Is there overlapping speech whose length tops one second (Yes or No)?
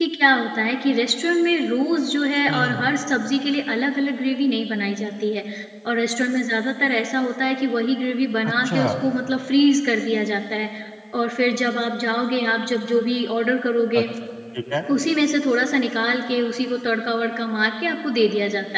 No